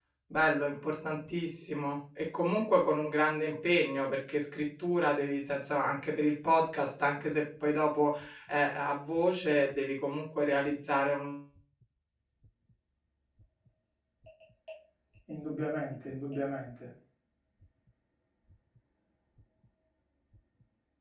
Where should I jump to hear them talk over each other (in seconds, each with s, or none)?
none